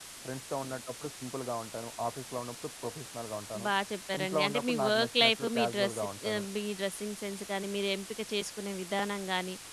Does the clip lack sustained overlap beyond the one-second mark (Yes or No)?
No